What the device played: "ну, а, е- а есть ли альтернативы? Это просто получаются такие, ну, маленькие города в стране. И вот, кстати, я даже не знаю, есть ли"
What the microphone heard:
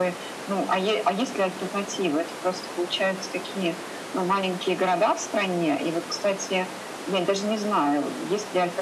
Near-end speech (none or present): none